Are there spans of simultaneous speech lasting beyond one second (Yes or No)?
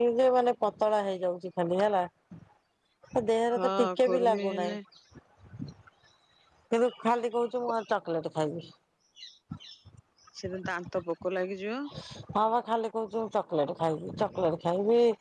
Yes